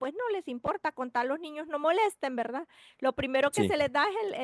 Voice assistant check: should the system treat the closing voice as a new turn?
No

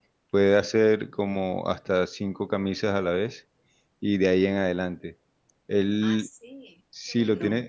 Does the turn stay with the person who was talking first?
Yes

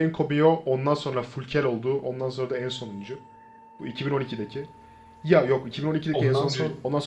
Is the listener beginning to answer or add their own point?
No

